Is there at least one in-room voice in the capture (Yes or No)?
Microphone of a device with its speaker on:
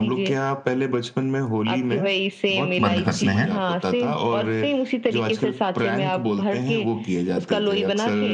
Yes